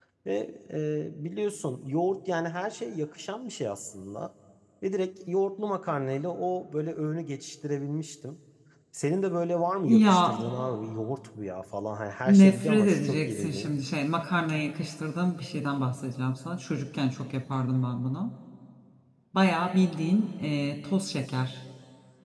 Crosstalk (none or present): present